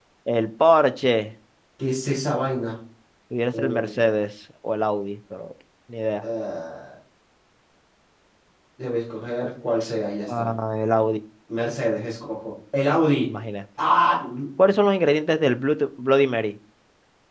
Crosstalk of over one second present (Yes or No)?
No